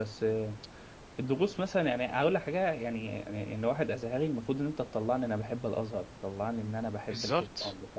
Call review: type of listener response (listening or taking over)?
listening